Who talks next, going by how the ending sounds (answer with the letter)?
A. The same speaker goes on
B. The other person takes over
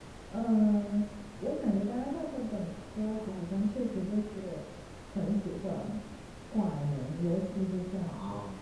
A